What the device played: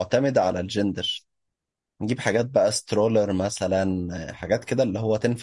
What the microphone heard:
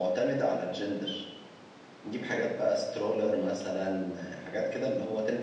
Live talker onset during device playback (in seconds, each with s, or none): none